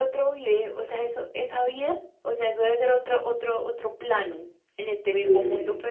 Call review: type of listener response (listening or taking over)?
listening